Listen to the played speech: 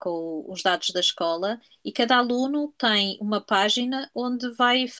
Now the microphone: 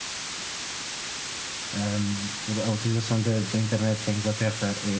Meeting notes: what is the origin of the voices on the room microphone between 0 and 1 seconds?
neither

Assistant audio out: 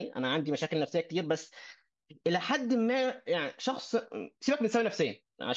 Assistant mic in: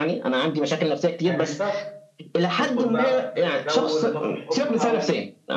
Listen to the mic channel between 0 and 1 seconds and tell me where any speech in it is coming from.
echo only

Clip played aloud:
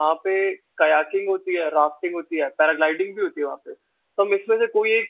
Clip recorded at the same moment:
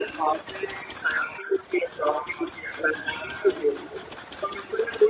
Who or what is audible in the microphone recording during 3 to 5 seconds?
echo only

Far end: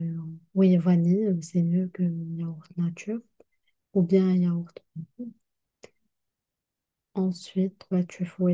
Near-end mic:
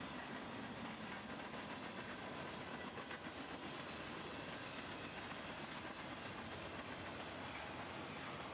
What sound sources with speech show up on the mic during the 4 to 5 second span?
neither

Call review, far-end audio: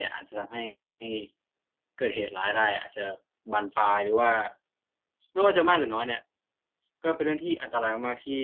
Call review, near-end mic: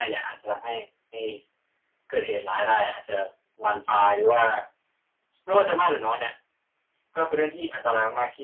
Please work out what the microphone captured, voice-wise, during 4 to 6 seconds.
echo only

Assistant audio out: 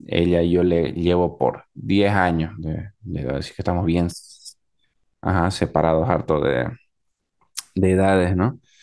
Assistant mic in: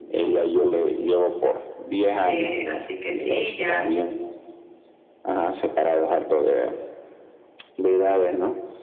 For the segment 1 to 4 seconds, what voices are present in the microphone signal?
both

